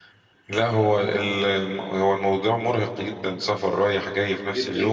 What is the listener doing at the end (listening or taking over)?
taking over